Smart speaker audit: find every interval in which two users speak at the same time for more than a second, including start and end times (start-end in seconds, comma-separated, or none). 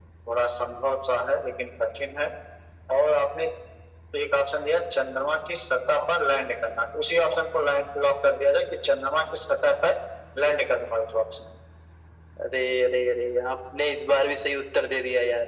none